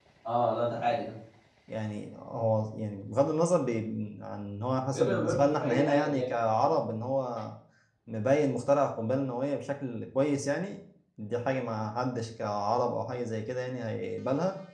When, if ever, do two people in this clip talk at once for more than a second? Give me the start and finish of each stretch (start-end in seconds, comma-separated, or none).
4.9-6.9